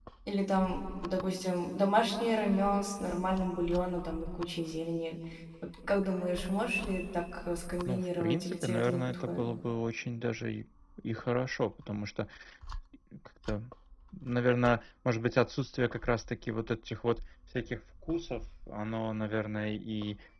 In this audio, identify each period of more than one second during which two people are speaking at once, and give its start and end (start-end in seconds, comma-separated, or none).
7.8-9.5